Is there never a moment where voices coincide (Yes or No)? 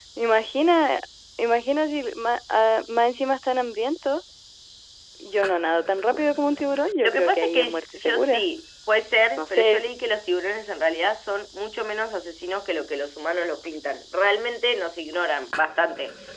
No